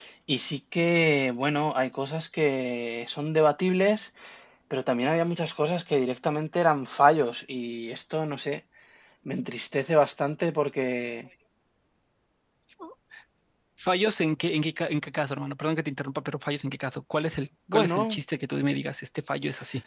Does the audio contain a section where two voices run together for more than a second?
No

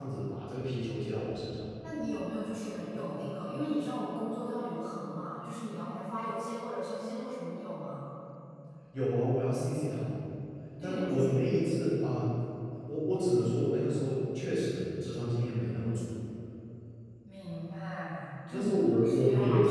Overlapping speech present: Yes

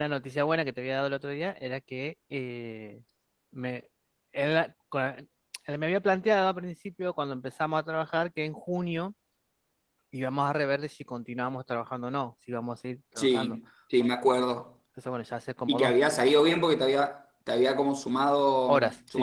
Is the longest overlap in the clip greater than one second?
No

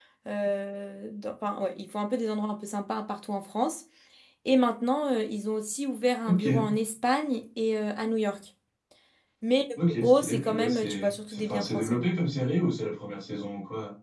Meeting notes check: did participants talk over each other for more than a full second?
Yes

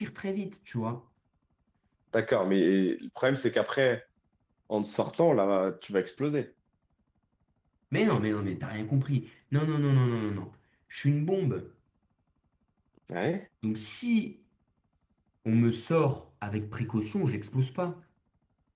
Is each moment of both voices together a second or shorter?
Yes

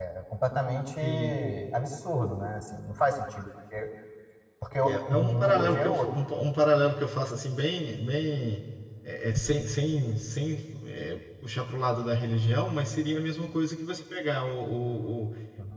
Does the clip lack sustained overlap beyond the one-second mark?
No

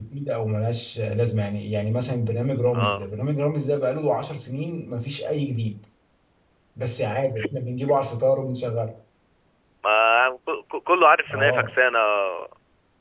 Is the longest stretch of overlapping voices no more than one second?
Yes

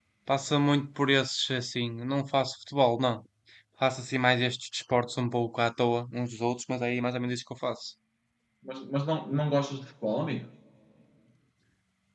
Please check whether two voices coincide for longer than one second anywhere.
No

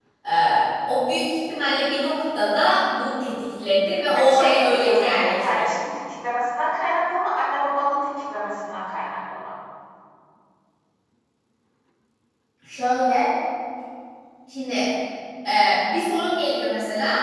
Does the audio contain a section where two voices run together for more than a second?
Yes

